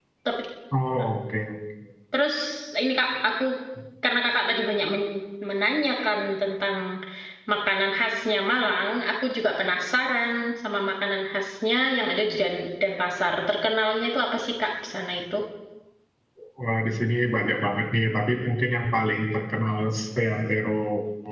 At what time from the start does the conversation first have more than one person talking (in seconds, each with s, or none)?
none